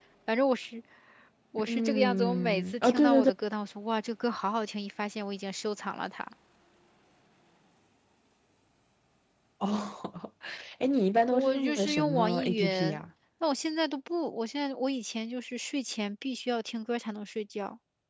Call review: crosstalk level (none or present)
present